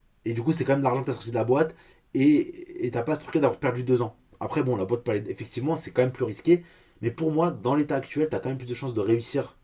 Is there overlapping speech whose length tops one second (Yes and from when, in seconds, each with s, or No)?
No